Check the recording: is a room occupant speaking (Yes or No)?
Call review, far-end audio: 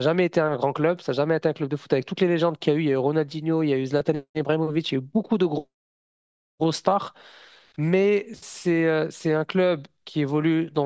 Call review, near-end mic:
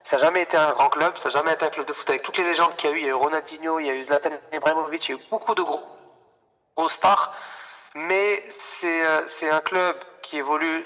No